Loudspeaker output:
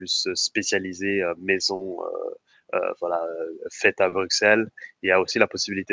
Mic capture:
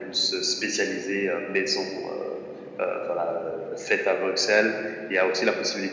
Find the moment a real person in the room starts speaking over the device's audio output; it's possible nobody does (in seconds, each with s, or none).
none